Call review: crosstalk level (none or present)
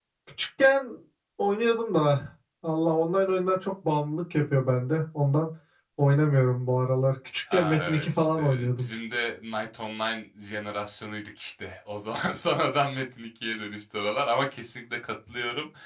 present